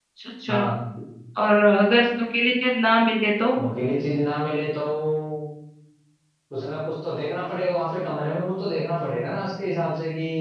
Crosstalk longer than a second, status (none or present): none